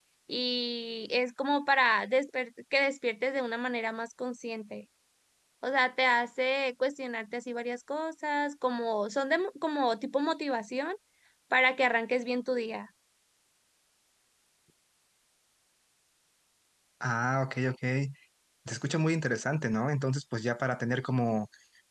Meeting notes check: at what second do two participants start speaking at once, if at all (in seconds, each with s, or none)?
none